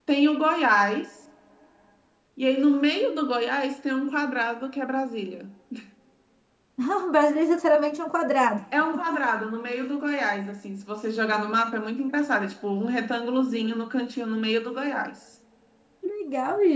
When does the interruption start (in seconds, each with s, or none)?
none